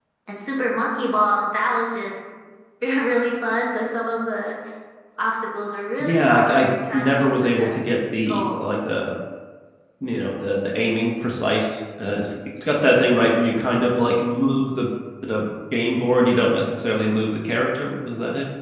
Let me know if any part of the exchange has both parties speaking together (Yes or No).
Yes